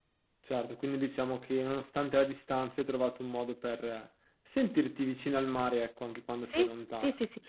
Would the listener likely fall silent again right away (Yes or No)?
No